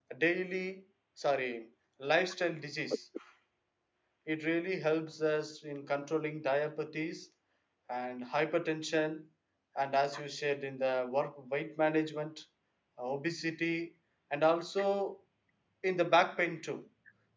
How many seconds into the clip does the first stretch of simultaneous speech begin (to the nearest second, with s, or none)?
none